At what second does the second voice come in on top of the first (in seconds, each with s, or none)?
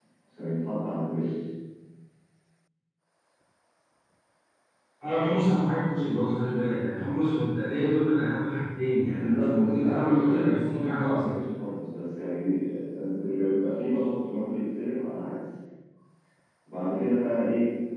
9.2 s